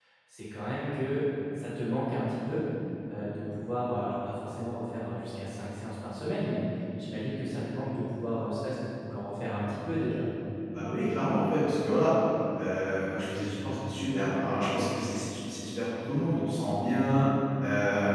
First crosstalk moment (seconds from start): none

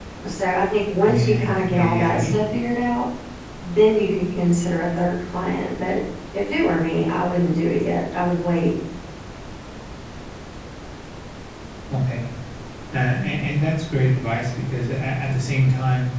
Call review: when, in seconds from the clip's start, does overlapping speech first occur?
1.1 s

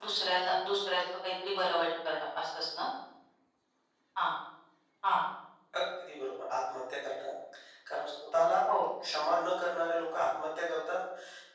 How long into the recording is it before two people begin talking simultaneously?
none

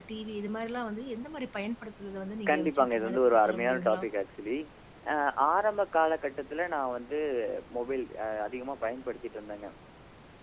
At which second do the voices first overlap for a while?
2.5 s

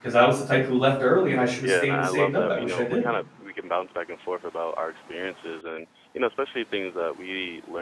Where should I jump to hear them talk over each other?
1.6 s

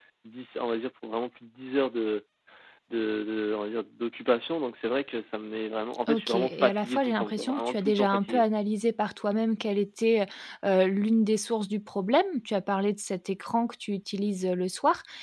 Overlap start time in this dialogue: 6.1 s

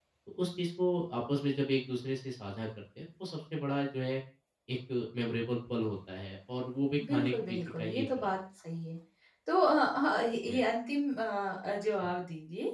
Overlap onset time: 7.0 s

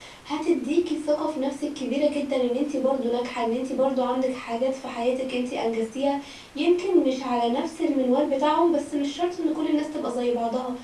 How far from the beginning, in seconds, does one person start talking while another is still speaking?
none

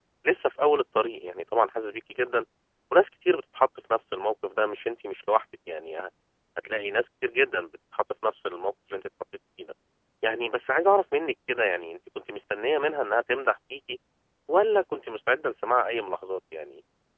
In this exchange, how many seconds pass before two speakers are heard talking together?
none

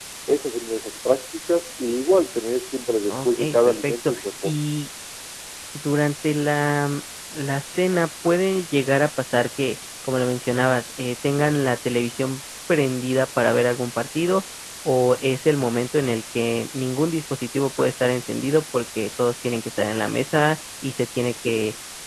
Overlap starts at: 3.1 s

